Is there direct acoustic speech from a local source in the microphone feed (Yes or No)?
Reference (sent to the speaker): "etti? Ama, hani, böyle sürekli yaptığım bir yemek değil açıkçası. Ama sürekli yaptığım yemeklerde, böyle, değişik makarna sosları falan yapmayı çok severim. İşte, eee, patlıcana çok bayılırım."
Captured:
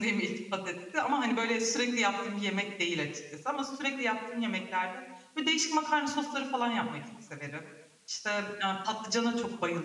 No